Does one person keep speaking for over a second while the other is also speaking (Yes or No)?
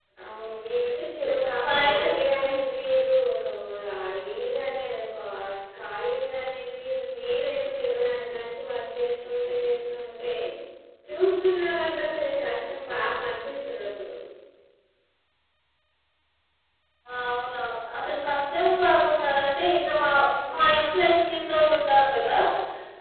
No